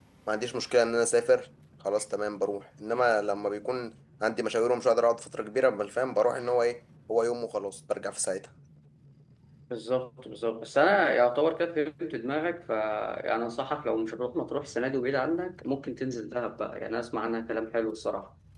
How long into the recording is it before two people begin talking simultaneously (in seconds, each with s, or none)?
none